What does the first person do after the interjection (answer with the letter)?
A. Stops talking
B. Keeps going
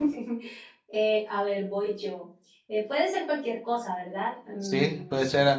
A